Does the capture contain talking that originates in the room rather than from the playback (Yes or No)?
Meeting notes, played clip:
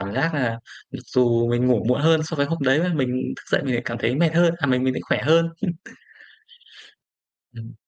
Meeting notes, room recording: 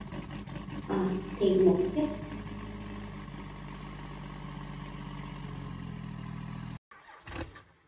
Yes